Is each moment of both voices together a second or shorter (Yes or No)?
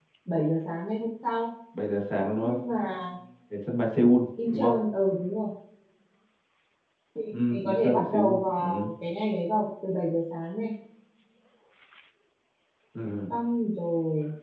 No